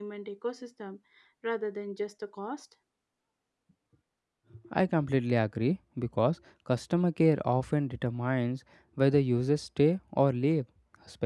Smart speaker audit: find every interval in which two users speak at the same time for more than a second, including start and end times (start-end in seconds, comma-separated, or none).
none